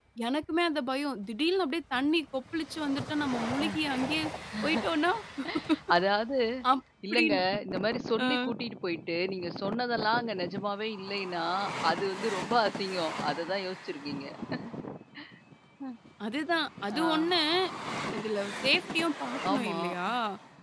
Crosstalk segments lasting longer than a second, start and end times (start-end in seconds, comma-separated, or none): none